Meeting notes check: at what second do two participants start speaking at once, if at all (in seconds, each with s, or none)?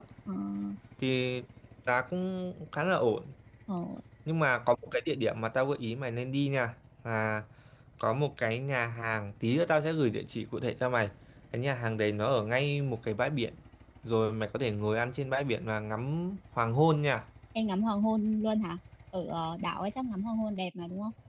none